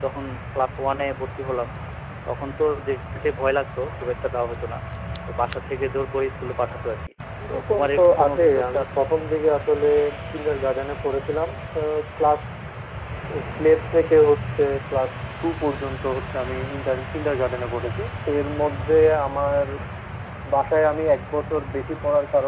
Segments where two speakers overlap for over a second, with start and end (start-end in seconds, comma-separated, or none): 7.5-9.1